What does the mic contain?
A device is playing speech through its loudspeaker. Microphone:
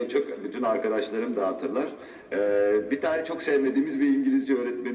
echo only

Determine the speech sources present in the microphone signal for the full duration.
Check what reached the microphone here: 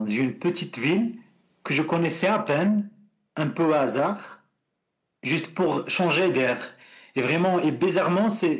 echo only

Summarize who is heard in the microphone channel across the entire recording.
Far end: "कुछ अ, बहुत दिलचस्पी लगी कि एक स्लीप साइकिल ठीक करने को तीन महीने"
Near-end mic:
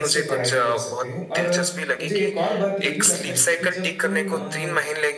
both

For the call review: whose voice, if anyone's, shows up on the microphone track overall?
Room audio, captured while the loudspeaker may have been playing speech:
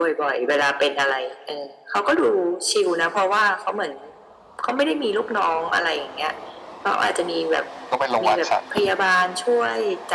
both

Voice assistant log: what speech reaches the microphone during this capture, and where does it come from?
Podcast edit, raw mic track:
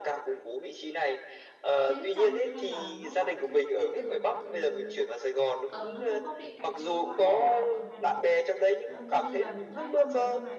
both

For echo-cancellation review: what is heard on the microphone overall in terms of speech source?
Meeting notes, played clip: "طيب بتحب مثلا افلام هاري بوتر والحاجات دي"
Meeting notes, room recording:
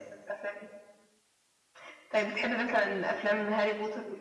echo only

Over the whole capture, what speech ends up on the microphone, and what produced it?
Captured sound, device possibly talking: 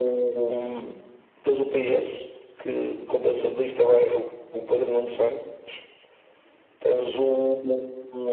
echo only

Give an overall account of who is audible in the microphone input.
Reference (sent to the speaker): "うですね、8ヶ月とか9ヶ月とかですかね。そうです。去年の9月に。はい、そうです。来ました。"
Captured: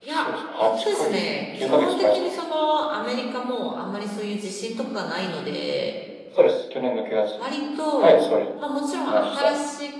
both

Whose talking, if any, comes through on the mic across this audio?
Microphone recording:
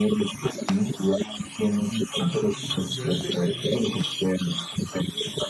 both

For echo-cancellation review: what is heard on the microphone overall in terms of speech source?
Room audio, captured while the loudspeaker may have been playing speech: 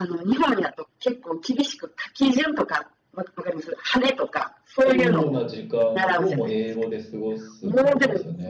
both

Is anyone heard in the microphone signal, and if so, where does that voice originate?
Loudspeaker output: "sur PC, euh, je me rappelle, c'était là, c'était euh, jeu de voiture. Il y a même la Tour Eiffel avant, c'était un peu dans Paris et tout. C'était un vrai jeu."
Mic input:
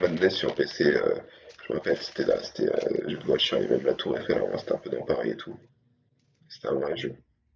echo only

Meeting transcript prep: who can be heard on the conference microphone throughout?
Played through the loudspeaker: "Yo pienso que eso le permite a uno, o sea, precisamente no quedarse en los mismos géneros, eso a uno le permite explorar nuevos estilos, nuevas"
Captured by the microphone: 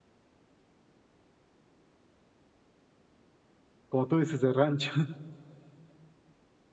user only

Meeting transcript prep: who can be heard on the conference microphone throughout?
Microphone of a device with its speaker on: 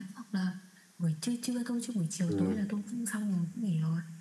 both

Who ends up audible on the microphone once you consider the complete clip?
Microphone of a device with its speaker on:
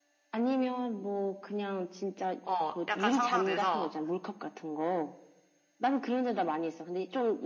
both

